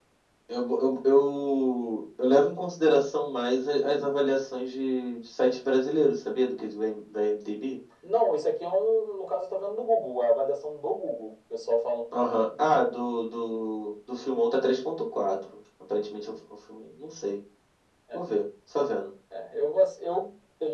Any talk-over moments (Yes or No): No